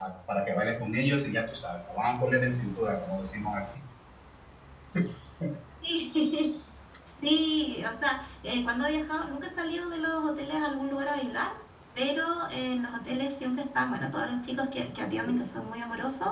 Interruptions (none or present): none